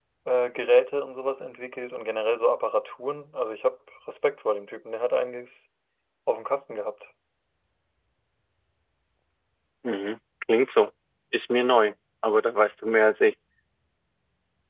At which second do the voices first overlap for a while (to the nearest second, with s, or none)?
none